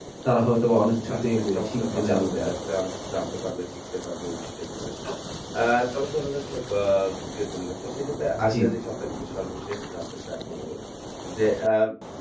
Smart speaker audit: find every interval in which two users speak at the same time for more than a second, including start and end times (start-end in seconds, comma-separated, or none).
1.1-2.5